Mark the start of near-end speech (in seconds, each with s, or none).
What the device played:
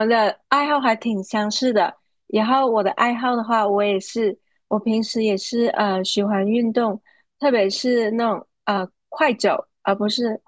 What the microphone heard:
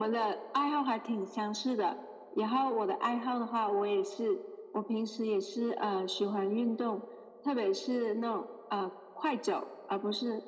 none